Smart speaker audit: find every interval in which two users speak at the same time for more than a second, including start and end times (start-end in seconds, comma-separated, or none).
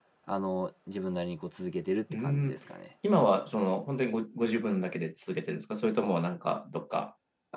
none